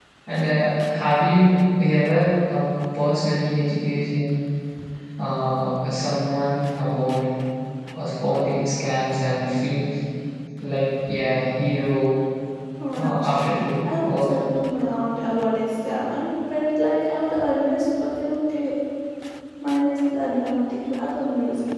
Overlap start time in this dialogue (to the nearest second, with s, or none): 13 s